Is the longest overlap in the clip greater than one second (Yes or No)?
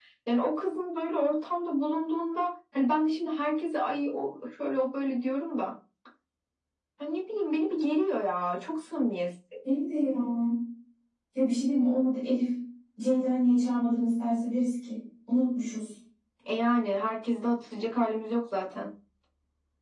No